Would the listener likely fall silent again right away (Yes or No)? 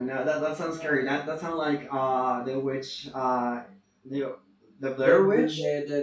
No